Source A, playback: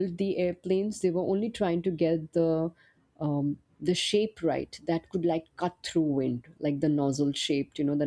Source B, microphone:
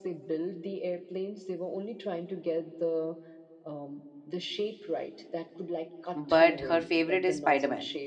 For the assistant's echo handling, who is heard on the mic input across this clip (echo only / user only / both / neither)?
both